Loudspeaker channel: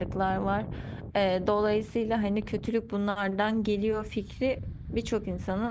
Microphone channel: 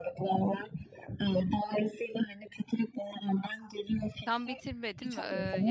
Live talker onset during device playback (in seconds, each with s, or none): 4.2 s